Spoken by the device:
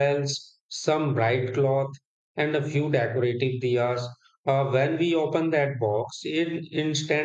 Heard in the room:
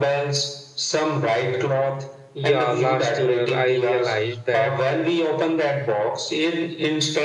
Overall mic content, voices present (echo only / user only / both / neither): both